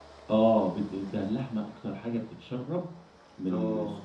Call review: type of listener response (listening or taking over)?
listening